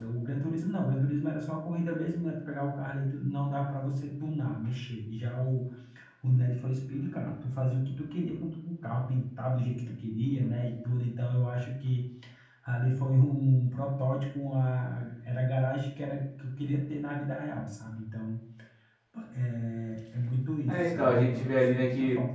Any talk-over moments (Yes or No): Yes